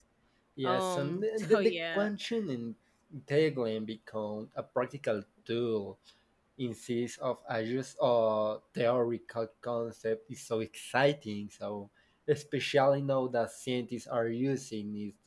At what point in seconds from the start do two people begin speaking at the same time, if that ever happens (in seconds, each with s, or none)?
0.6 s